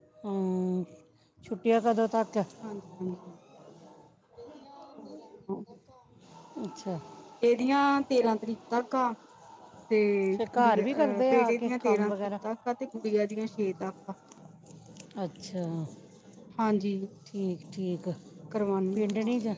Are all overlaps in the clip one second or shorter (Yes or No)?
No